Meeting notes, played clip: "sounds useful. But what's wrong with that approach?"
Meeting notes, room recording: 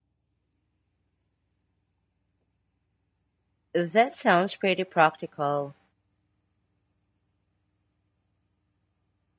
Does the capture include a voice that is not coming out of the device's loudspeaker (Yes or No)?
Yes